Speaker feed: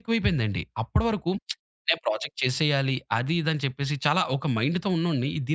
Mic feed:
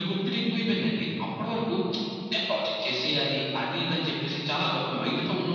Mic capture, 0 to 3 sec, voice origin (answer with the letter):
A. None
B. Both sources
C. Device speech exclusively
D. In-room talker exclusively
C